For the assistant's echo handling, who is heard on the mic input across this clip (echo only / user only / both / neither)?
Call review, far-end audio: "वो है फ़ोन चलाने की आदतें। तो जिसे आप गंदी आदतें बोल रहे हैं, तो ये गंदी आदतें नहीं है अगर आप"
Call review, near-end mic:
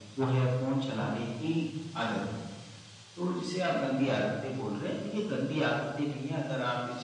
echo only